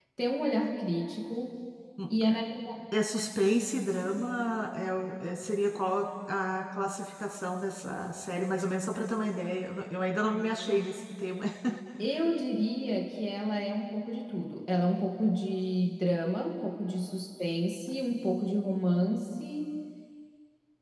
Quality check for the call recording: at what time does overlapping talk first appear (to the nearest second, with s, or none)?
none